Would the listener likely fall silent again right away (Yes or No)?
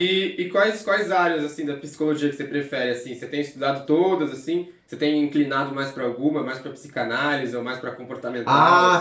No